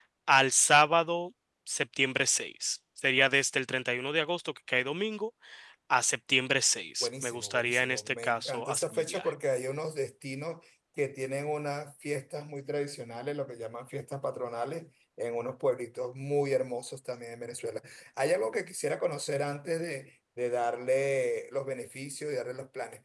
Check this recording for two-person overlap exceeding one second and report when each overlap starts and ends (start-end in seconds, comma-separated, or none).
7.0-9.3